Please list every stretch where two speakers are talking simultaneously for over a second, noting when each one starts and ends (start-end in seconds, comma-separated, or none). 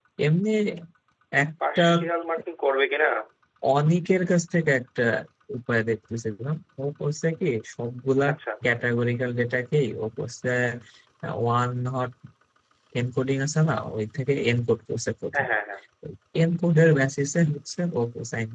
none